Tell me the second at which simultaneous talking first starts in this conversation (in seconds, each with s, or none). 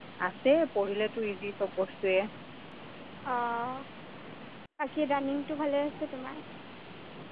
none